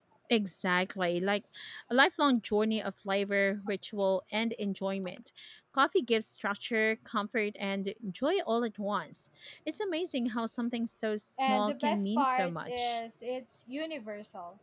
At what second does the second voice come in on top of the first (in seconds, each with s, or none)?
11.4 s